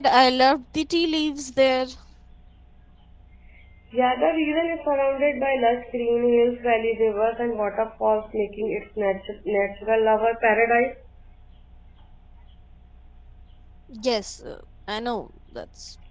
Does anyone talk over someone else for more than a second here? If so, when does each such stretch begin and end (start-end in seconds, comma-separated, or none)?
none